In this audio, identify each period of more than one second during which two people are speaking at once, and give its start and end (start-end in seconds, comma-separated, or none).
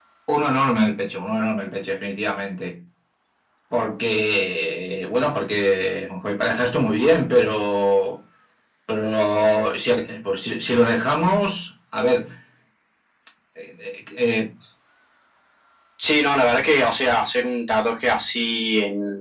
none